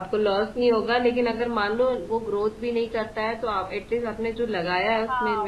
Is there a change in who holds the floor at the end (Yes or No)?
Yes